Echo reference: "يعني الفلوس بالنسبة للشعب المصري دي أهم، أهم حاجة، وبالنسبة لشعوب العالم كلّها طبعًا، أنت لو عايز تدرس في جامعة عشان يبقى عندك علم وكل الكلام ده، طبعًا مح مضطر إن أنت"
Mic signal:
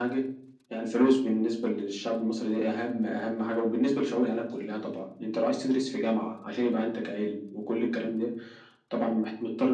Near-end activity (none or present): none